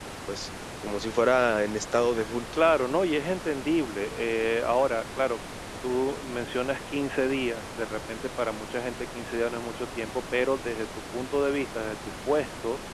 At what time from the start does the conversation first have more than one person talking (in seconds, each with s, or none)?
none